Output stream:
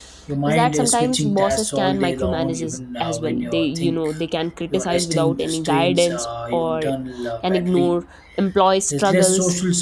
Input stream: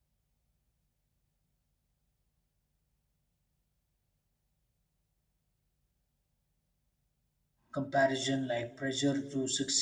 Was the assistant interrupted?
Yes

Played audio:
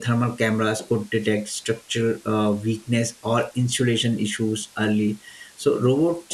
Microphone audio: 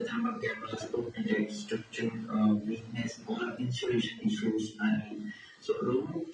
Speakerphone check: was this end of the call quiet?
Yes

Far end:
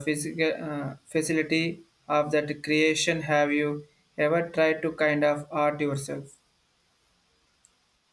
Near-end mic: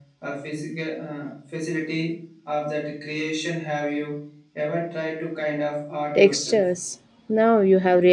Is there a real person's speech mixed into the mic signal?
Yes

